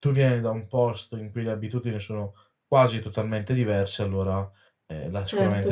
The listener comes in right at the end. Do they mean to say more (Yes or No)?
Yes